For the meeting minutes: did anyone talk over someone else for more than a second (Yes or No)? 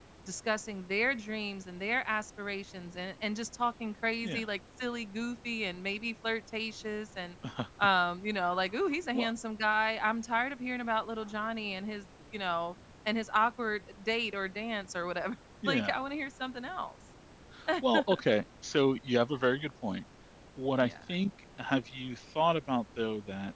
No